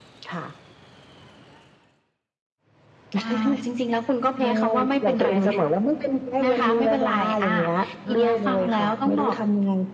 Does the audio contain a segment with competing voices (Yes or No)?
Yes